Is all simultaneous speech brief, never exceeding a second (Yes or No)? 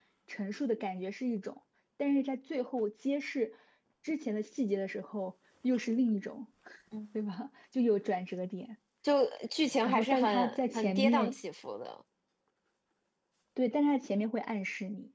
No